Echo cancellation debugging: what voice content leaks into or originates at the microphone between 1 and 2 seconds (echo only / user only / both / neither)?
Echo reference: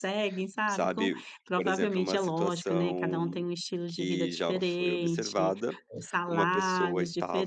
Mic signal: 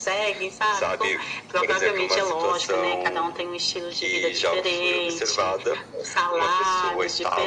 echo only